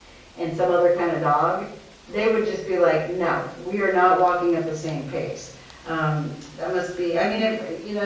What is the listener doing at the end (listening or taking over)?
listening